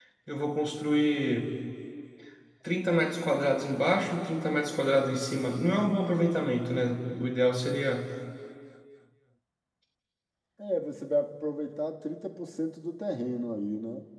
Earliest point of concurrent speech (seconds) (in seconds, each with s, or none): none